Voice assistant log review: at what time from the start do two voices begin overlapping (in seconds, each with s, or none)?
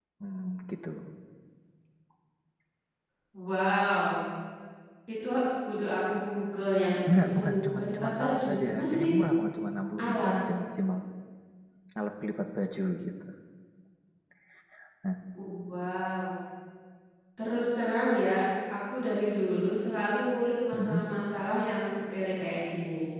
7.1 s